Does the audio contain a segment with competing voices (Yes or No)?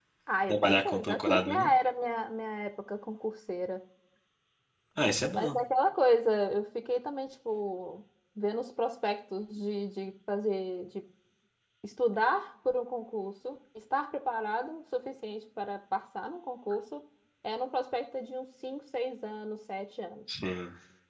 Yes